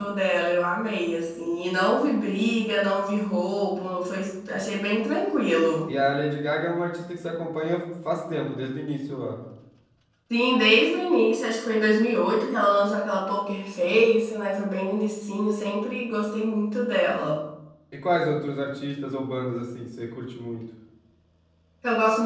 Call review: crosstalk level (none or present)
none